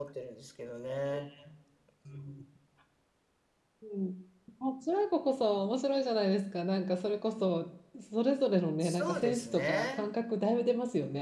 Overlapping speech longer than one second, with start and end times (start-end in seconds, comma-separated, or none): 8.8-10.0